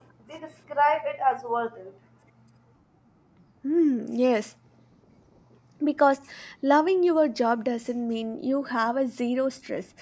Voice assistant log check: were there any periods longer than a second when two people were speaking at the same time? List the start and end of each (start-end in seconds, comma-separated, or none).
none